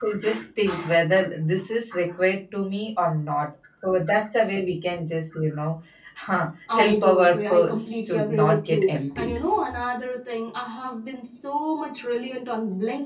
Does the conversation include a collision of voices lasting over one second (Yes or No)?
Yes